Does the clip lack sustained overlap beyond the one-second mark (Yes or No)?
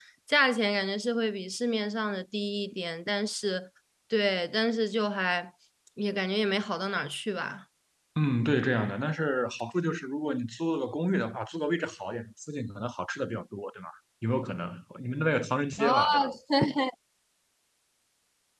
Yes